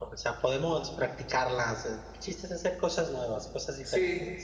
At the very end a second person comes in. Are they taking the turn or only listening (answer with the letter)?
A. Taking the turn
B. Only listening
A